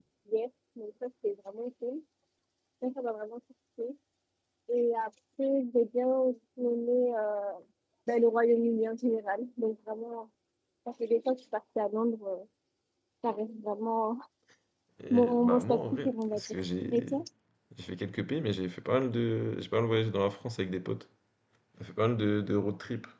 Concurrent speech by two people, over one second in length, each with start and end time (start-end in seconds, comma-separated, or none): 15.1-16.5